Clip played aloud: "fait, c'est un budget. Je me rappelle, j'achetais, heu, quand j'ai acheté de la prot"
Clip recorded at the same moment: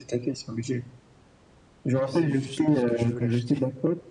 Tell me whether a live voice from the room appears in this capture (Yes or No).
Yes